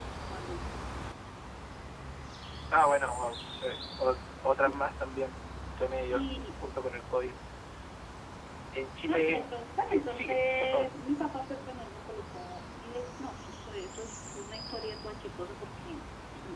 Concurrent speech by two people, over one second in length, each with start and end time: 9.1-10.9

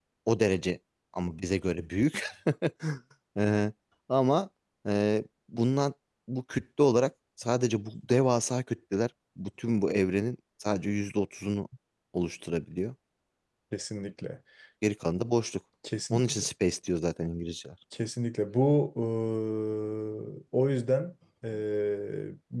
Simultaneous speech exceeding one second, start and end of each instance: none

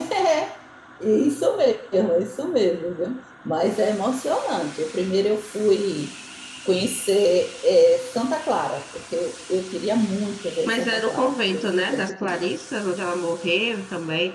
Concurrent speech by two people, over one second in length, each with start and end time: 10.7-12.4

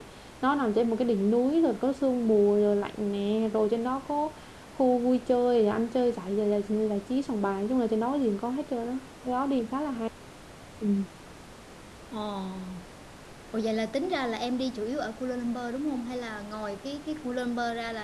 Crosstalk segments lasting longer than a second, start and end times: none

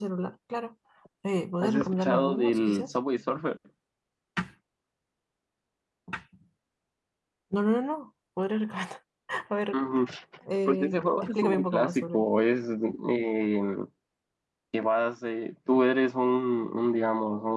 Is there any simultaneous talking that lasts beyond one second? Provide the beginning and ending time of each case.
1.6-2.9, 10.7-12.2

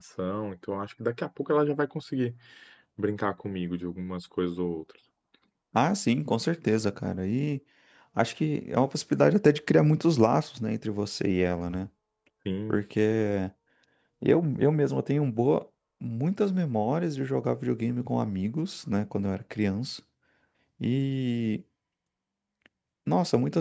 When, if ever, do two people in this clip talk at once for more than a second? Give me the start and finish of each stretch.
none

